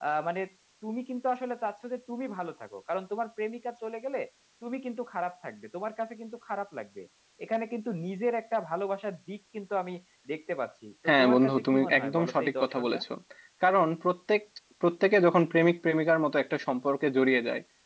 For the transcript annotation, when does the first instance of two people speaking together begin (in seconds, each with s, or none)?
11.1 s